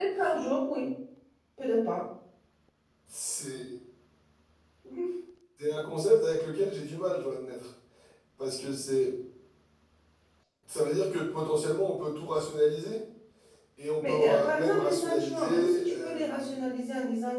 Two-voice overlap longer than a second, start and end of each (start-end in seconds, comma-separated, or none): 14.0-16.5